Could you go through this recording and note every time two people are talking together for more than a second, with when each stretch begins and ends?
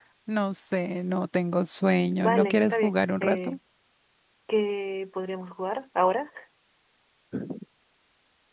2.2-3.6

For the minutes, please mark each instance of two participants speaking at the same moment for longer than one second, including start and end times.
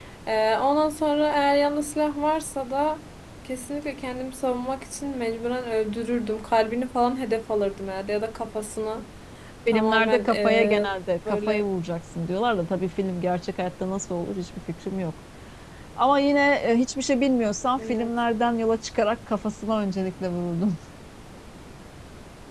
9.7-10.9

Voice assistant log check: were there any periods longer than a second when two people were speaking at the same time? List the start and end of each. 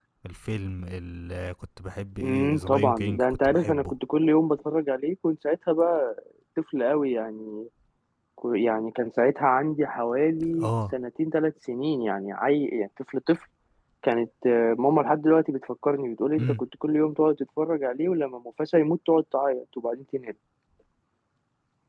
2.2-4.0

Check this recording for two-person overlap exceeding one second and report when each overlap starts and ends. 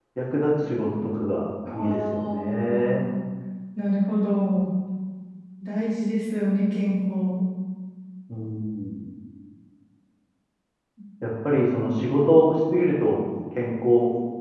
1.7-3.0

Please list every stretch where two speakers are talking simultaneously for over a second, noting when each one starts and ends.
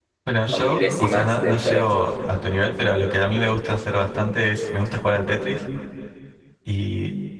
0.5-1.9

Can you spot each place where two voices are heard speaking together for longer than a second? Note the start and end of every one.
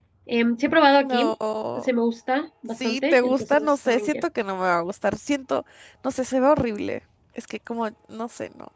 2.8-4.2

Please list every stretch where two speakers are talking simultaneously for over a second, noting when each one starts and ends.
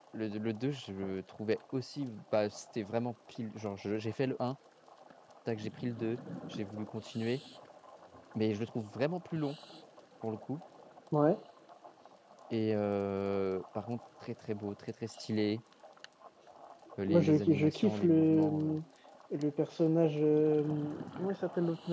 17.1-18.8

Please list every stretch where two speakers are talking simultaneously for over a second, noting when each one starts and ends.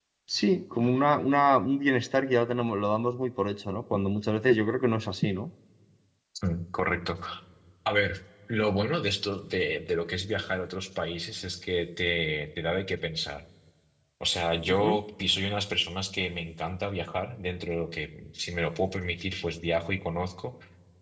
none

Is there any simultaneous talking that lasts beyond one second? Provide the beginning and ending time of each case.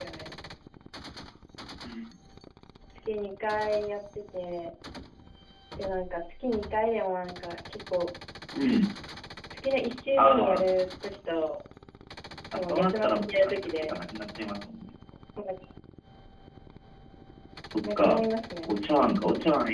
12.5-13.9

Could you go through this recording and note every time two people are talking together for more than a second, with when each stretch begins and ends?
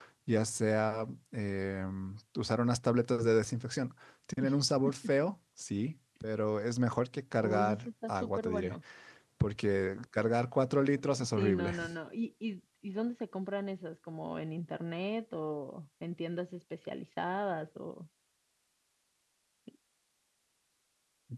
7.4-8.8

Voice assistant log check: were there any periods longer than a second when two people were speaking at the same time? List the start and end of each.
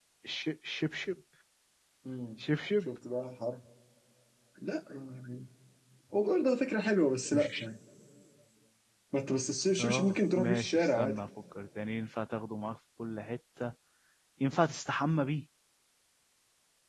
9.8-11.2

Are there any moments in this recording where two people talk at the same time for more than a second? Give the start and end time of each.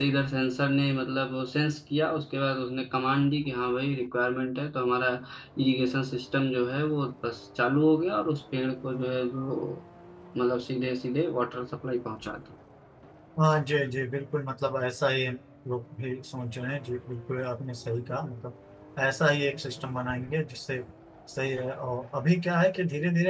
none

